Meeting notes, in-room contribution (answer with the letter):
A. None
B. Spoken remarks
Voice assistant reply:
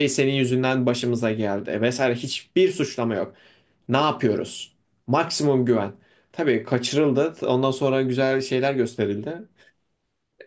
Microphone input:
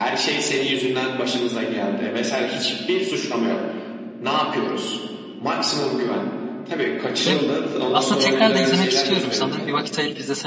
B